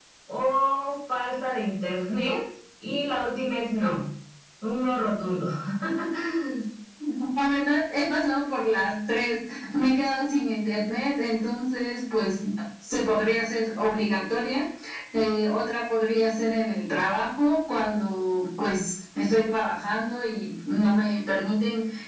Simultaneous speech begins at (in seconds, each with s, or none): none